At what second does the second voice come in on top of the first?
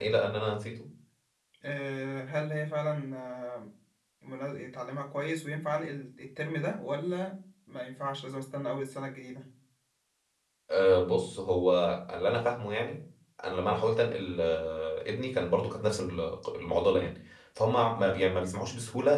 none

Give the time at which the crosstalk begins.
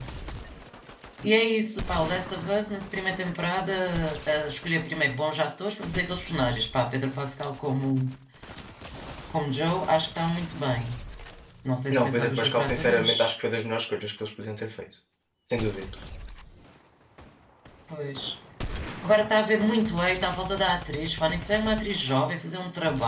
11.9 s

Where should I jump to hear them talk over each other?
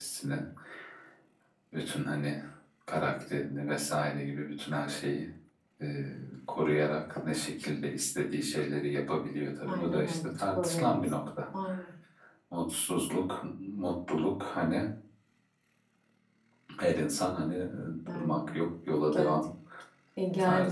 9.7 s

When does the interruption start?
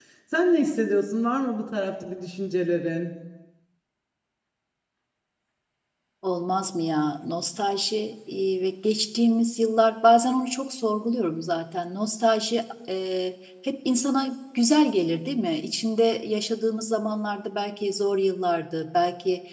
none

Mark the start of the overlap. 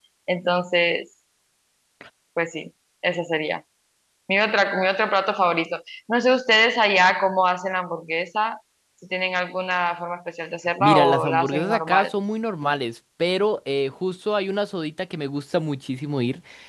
10.8 s

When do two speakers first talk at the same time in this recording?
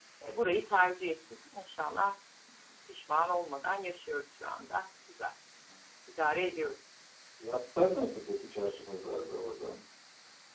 none

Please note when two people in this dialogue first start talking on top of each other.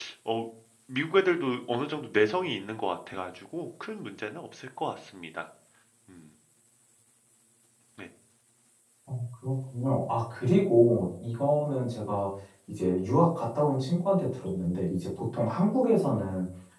none

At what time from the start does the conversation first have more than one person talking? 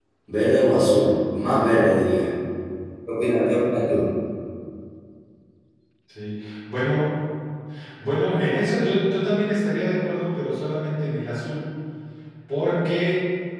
none

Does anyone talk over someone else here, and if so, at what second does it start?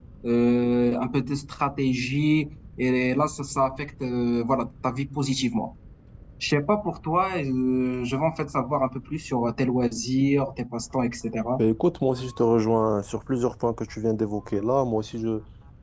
none

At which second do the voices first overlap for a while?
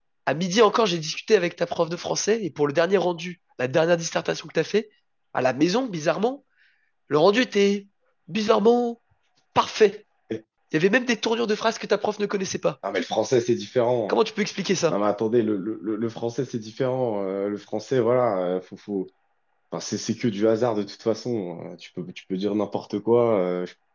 none

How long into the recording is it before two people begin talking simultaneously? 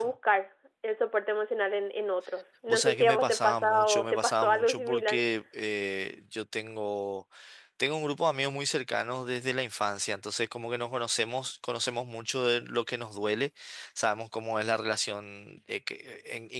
2.7 s

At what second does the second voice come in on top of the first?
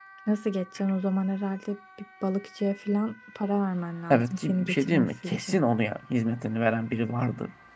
4.1 s

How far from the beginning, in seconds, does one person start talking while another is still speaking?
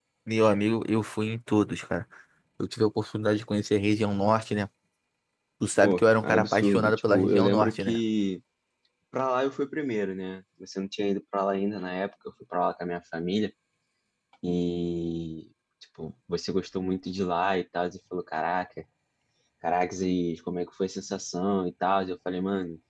5.8 s

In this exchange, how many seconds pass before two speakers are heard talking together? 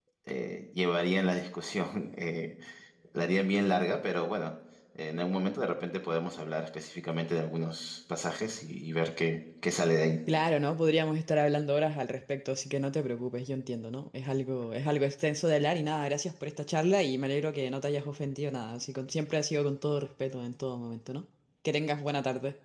none

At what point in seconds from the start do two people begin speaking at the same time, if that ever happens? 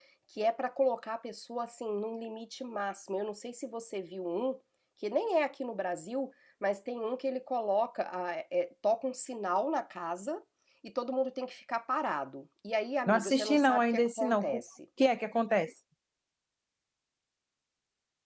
13.1 s

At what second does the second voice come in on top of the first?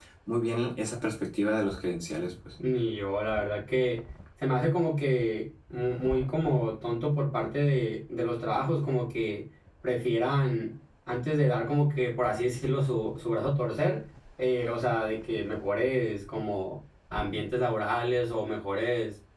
none

